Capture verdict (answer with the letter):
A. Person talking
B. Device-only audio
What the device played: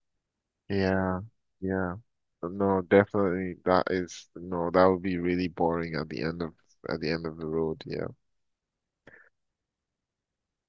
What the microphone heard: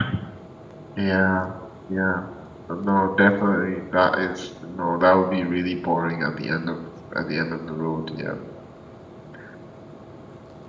B